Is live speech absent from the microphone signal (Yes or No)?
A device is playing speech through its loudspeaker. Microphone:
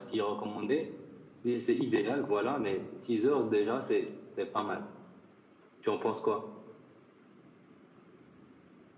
Yes